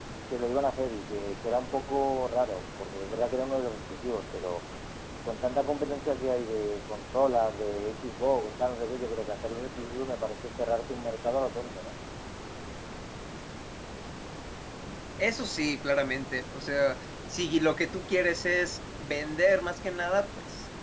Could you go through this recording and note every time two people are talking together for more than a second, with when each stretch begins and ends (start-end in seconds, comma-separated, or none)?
none